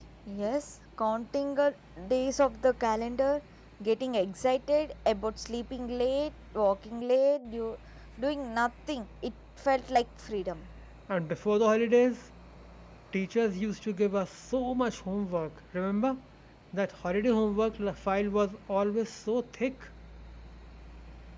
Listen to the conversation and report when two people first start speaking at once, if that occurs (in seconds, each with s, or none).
none